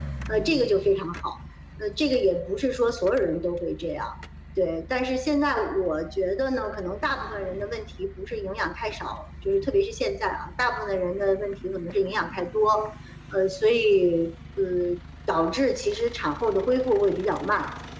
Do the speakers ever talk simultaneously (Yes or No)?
No